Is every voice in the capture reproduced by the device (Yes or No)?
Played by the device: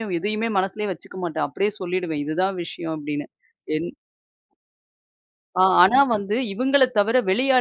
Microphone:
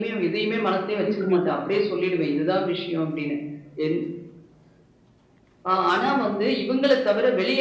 No